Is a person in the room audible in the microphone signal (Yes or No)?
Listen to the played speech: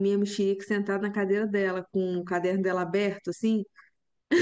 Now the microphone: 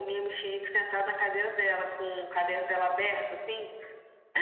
No